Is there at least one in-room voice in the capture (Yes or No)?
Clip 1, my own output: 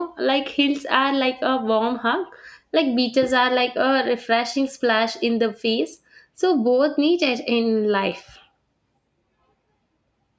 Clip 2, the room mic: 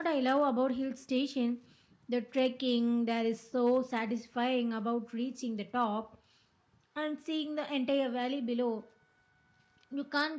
Yes